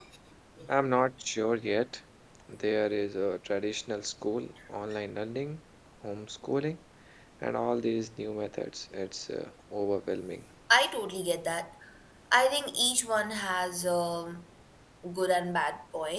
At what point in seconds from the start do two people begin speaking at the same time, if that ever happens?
none

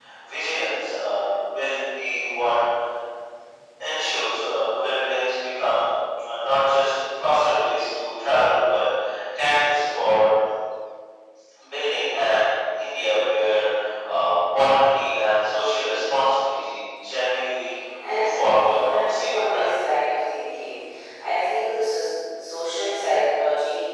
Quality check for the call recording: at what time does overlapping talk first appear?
18.0 s

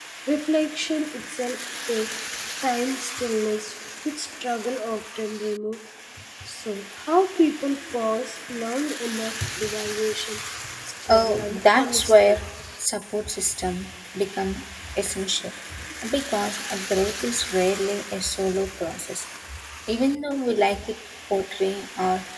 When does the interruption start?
11.1 s

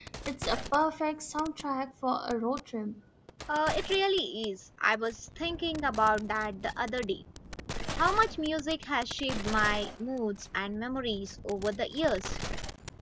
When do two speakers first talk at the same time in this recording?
none

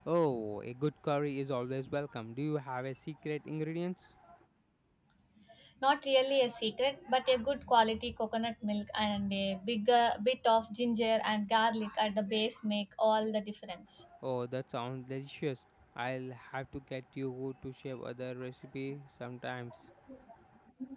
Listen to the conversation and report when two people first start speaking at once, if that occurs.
none

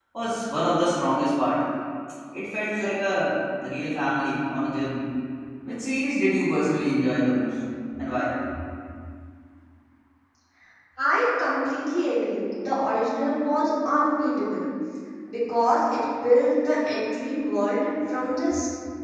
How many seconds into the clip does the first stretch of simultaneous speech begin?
none

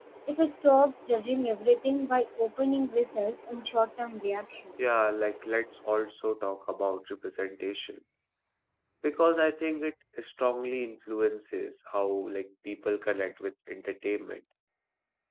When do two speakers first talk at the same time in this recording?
none

